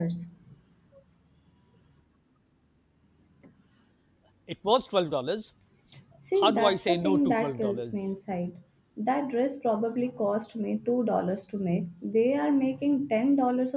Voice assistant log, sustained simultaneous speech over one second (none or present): present